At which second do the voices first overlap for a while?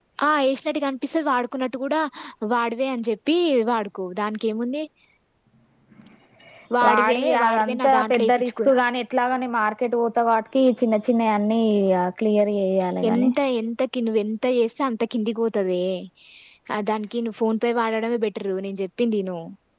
6.9 s

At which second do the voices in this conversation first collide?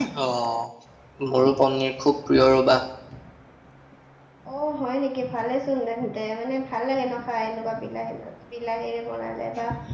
none

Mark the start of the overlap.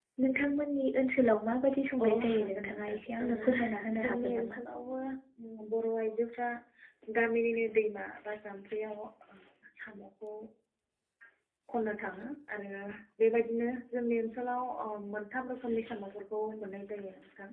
2.0 s

